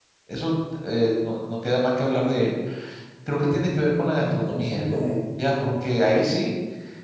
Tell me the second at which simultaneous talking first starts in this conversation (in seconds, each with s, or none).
3.5 s